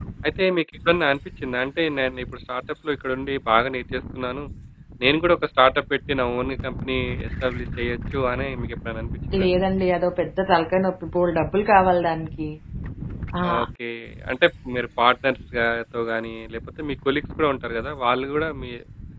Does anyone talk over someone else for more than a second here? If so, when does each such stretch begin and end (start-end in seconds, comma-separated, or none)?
none